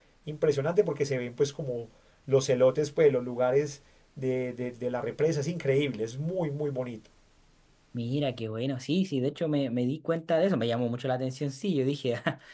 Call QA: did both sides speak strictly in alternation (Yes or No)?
Yes